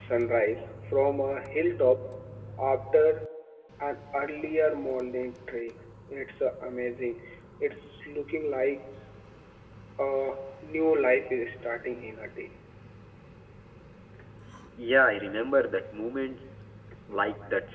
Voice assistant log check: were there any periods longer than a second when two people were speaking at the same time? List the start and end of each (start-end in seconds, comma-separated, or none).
none